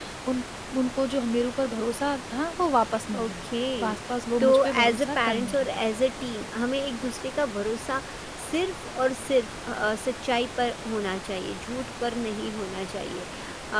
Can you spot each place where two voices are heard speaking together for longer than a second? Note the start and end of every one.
4.4-5.7

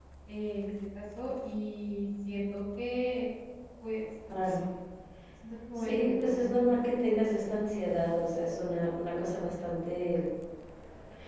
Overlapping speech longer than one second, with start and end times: 5.8-7.1

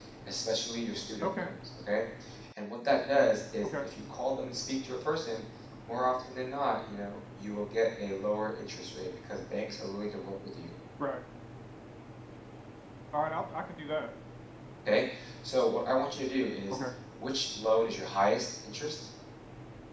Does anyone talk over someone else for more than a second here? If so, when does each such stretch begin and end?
none

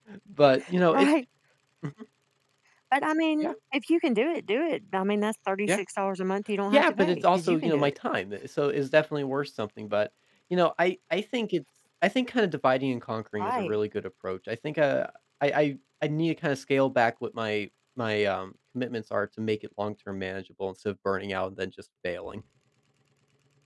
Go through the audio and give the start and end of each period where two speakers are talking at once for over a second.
6.7-7.9

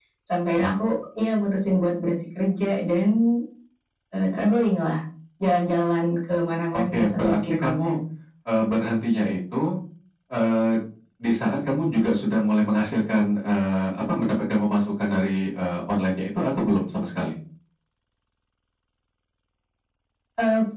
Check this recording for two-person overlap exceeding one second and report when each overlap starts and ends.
6.7-8.0

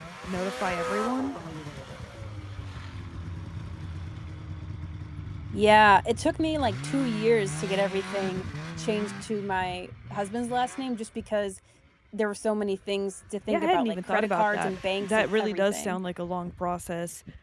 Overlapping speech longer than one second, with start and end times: 13.5-16.0

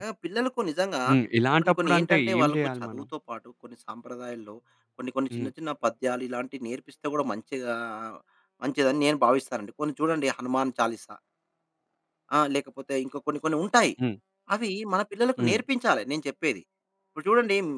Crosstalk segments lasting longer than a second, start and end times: 1.6-3.0

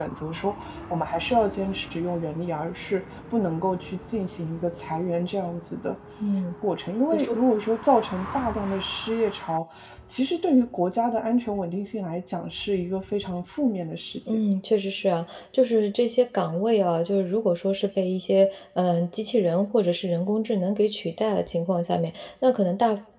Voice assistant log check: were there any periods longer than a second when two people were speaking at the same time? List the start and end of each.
none

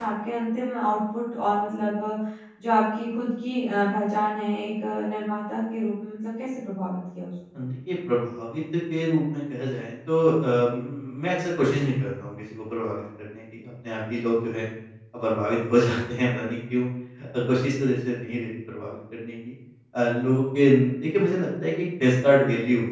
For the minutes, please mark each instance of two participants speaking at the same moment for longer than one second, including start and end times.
none

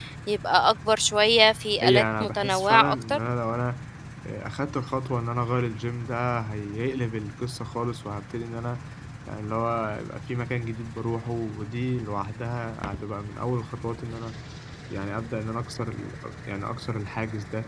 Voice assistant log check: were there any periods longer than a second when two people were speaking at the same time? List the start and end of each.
1.8-3.2

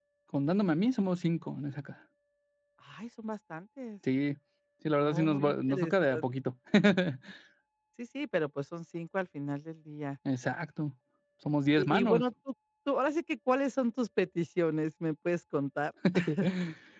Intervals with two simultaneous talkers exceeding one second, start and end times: 5.0-6.2

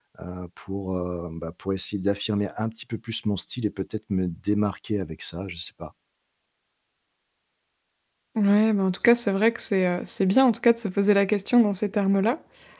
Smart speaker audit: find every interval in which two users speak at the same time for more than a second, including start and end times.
none

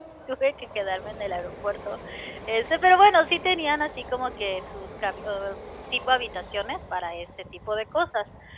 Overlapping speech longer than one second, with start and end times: none

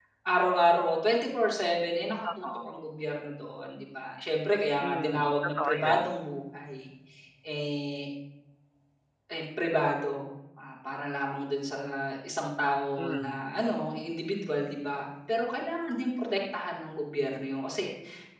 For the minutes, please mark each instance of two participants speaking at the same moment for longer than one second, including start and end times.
4.8-6.0

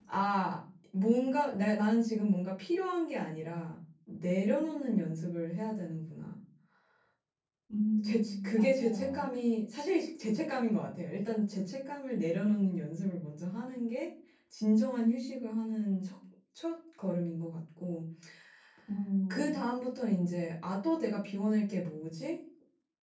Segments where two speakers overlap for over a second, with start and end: 8.0-9.2

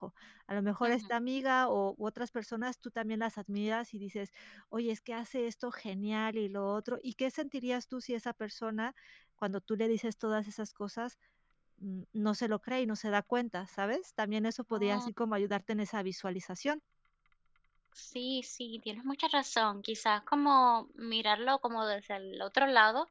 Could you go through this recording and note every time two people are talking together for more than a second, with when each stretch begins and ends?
none

